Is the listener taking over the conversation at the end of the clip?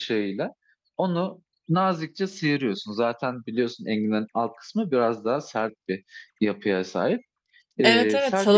Yes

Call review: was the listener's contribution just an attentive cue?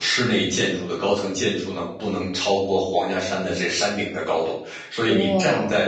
Yes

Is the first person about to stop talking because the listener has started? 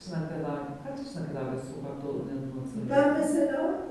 Yes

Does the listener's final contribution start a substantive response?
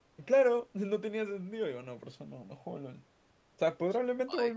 No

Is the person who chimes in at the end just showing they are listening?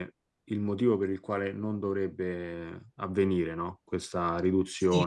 No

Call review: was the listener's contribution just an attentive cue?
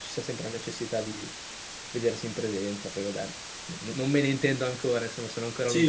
No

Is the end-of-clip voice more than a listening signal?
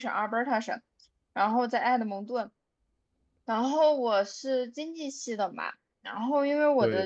No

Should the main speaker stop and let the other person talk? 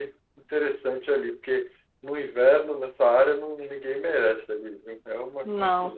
Yes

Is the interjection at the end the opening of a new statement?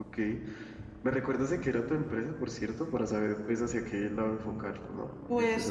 Yes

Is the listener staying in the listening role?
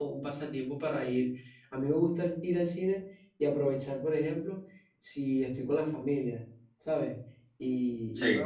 Yes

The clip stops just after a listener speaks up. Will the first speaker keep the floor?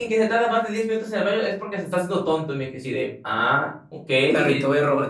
No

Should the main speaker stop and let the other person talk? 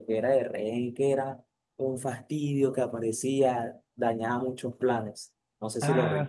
Yes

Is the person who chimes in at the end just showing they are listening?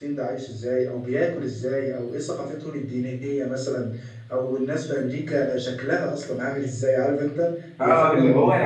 No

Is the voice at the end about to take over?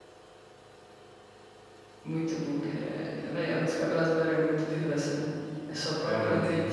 Yes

